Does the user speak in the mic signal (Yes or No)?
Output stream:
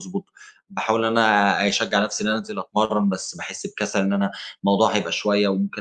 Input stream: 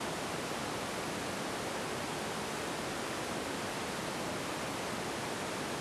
No